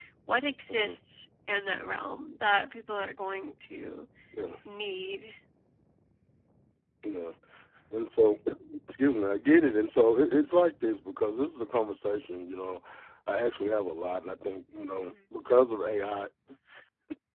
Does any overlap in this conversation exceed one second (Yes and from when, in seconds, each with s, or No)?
No